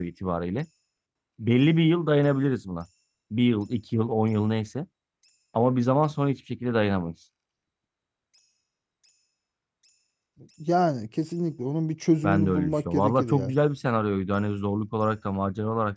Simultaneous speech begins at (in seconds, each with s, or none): 12.2 s